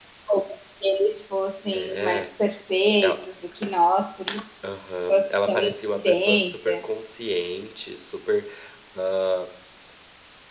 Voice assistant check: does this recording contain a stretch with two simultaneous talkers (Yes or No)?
Yes